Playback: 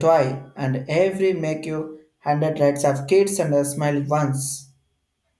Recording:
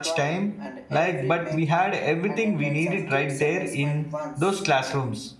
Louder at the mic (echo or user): user